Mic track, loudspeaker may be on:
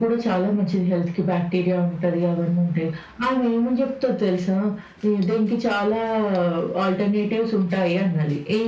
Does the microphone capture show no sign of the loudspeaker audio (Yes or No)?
No